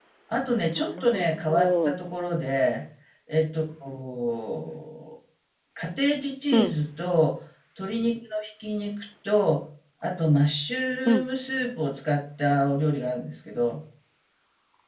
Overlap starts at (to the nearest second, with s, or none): 1 s